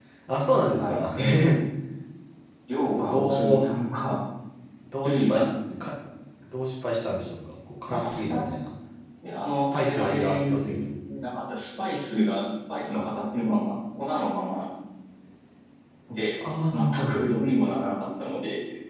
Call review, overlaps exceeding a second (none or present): present